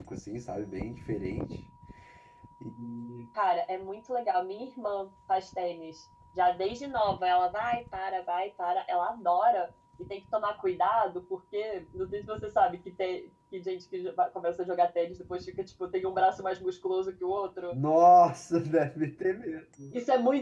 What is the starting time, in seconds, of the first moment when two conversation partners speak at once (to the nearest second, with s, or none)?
none